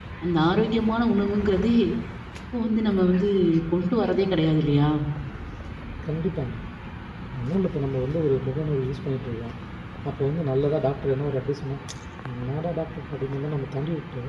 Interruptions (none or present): none